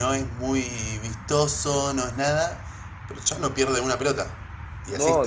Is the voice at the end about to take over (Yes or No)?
Yes